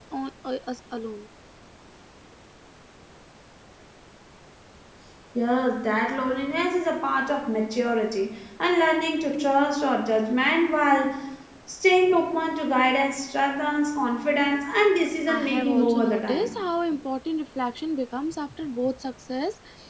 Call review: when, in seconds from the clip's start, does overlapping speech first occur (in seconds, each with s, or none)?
15.3 s